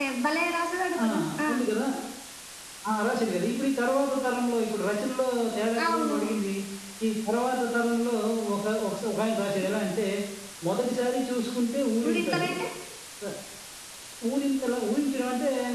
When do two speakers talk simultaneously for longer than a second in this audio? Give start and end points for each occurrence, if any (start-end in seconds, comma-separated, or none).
none